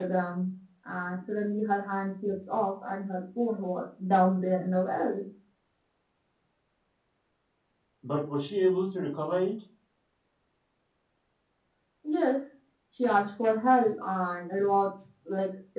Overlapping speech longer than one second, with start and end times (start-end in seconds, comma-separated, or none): none